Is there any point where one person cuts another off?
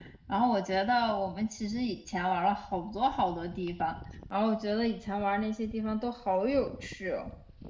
No

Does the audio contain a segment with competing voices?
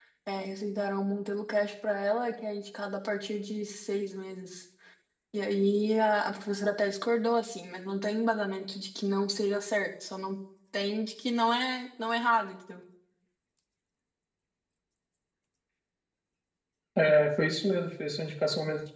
No

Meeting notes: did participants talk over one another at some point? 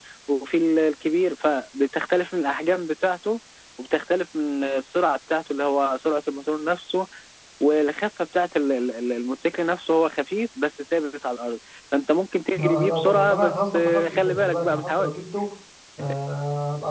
Yes, from 12.6 s

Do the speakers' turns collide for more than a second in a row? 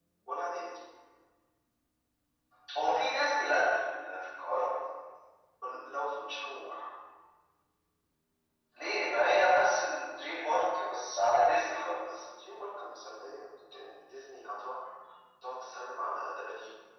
No

